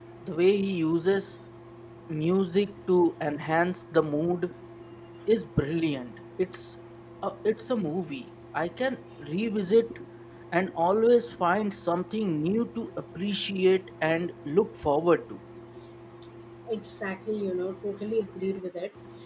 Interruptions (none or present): none